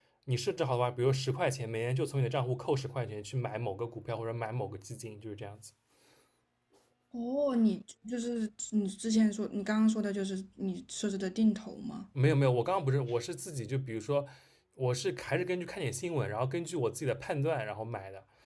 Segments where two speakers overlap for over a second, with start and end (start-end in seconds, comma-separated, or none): none